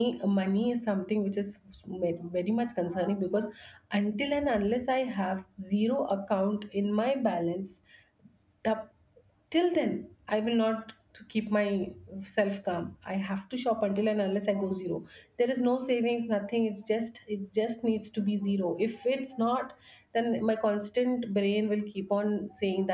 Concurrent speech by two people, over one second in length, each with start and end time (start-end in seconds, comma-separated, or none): none